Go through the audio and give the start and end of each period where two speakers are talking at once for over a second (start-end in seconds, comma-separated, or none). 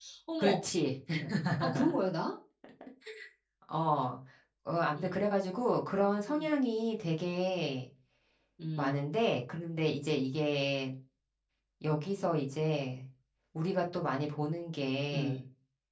none